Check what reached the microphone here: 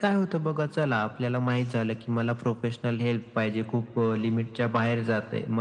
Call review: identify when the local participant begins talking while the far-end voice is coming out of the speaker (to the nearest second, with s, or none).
none